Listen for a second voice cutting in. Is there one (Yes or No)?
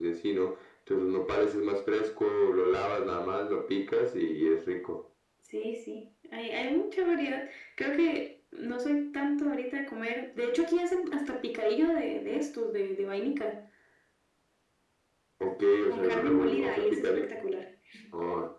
Yes